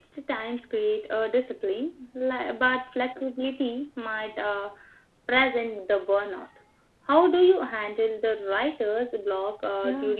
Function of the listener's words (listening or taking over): taking over